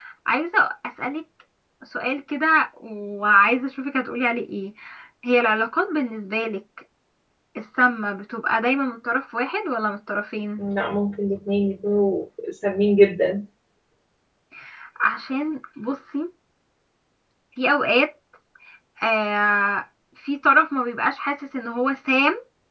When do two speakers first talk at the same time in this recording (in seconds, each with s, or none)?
none